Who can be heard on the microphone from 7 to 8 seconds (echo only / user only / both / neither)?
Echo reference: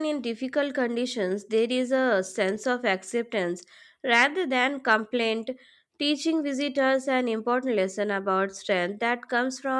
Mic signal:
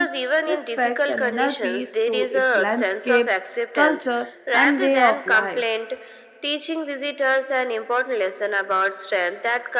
echo only